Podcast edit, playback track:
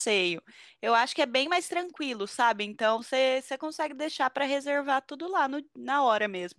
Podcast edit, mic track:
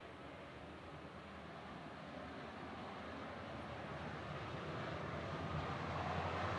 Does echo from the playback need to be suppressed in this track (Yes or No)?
No